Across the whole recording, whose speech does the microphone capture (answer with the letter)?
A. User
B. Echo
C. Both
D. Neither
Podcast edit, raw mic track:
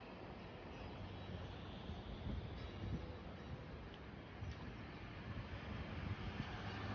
D